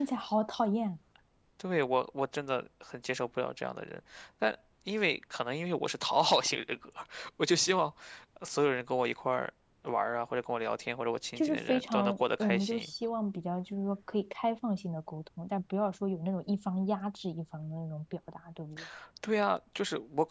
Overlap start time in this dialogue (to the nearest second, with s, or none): 11 s